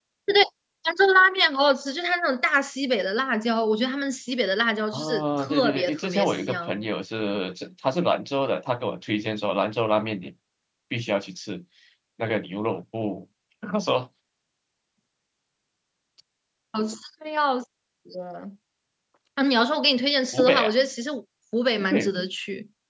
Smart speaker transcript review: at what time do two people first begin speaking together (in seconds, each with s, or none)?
4.9 s